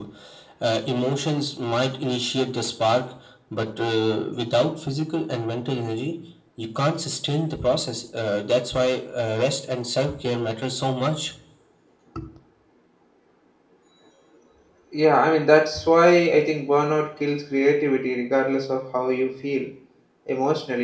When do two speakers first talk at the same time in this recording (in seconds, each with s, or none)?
none